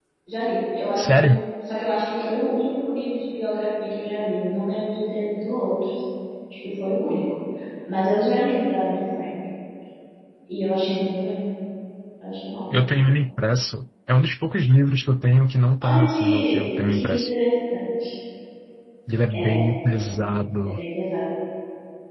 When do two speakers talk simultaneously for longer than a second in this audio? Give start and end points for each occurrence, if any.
15.8-17.3

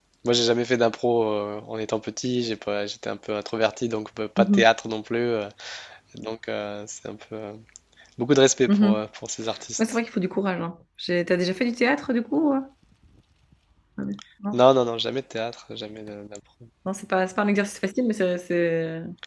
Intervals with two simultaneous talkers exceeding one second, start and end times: none

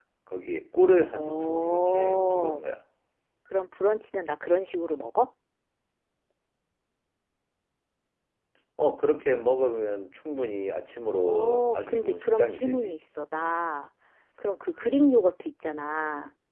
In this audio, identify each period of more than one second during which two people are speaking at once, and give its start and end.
1.1-2.6, 11.1-12.9

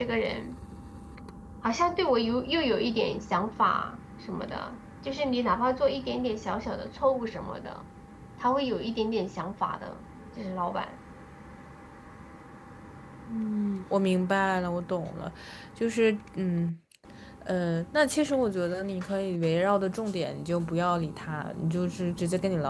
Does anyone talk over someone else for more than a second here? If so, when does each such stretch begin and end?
none

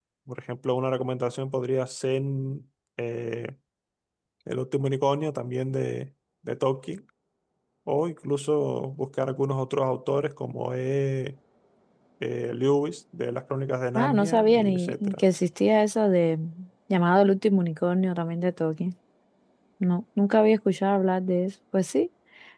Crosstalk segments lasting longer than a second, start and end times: 13.9-15.2

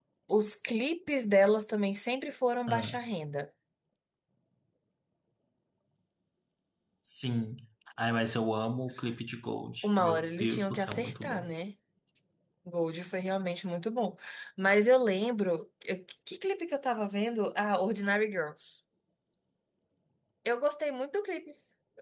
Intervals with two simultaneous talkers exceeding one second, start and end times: 9.8-11.5

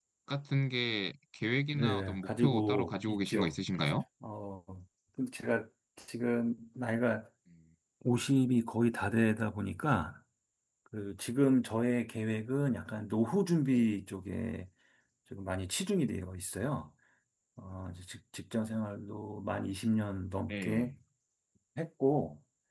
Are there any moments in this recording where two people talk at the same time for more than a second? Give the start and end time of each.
1.8-3.5

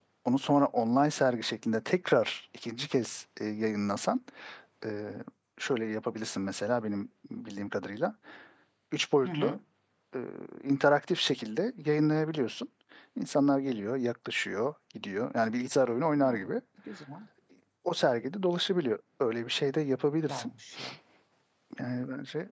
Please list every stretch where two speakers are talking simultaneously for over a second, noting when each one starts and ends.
none

